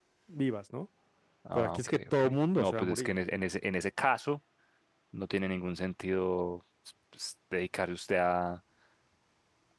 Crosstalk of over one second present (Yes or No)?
Yes